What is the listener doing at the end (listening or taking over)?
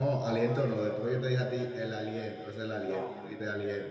listening